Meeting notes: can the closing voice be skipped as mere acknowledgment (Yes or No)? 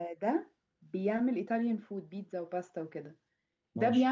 Yes